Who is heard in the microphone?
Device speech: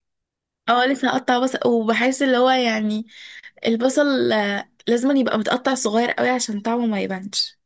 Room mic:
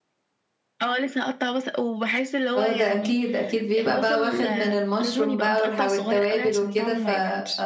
both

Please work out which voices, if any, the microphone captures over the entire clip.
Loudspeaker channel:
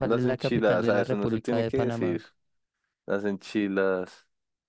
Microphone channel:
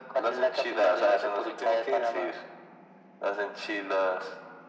echo only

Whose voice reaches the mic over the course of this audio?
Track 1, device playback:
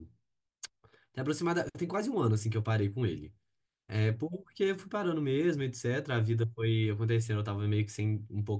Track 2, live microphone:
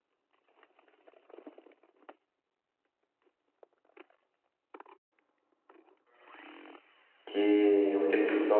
user only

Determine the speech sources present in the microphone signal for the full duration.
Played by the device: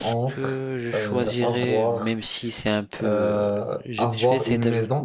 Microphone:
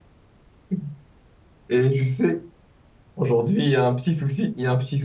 user only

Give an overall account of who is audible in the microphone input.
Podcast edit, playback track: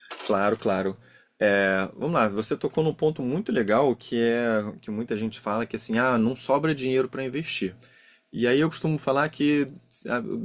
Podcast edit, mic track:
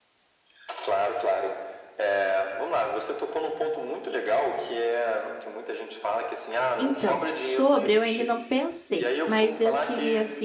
both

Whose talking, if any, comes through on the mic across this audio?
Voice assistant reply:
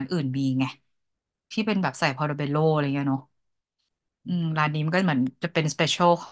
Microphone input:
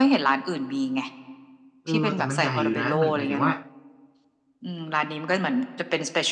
both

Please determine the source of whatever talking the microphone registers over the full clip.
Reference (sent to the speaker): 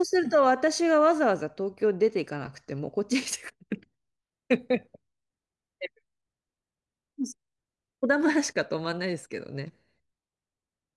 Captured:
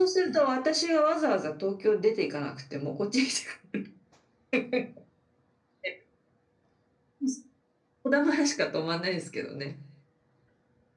echo only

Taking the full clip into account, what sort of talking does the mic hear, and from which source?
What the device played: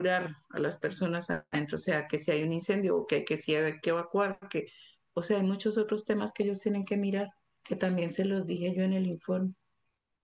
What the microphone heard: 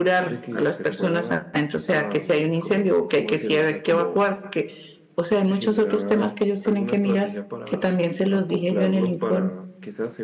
both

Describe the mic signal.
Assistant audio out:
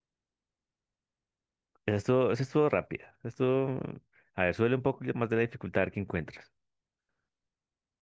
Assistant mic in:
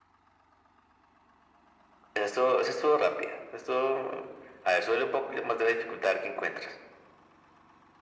echo only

